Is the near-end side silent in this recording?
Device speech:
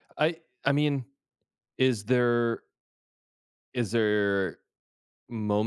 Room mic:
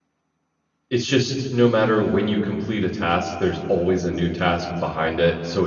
No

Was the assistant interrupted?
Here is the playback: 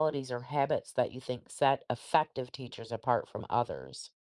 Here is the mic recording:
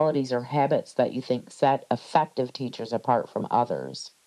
No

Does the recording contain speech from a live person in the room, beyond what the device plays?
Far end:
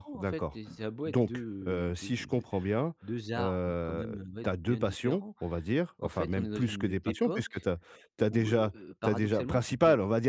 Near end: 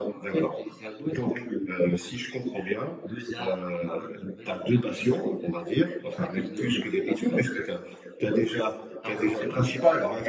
No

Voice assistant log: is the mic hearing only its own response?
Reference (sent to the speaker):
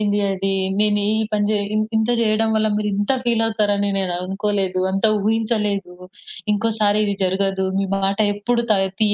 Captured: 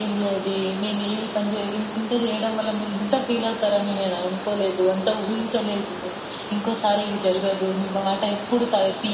Yes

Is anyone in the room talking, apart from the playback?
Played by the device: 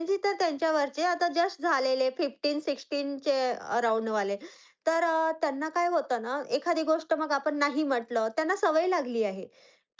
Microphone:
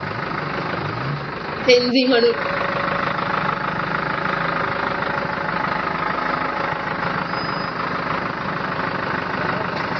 Yes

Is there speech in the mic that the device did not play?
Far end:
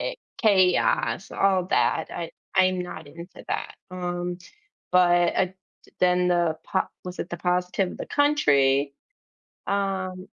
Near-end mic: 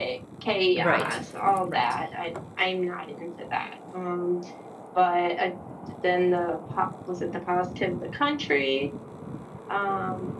Yes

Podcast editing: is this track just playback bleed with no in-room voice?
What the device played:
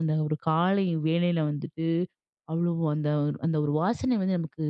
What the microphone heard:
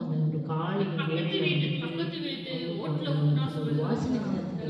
No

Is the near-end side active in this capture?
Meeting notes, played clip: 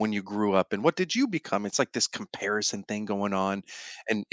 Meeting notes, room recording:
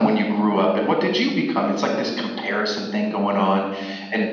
No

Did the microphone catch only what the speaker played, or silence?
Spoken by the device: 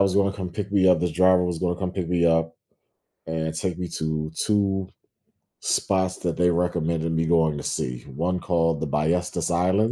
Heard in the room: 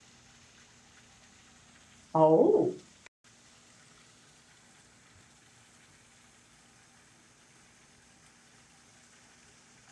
No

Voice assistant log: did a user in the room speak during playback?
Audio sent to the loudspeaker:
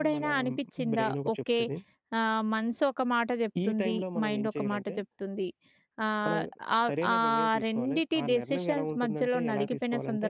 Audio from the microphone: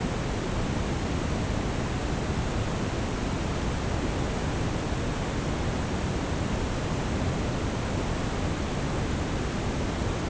No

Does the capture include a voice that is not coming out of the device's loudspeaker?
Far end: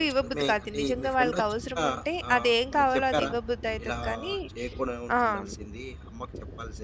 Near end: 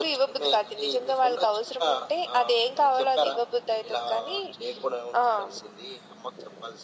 No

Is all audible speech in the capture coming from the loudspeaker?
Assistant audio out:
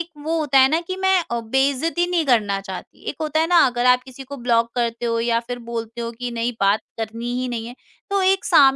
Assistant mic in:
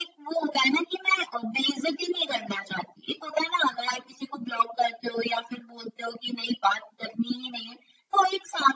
Yes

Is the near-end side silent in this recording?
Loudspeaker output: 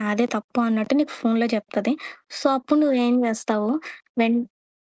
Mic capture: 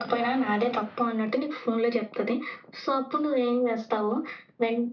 Yes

